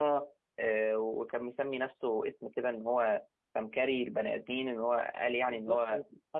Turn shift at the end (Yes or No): Yes